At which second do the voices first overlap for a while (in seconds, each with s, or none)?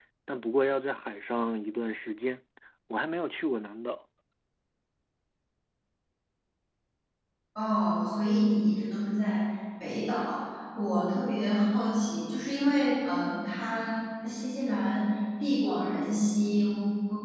none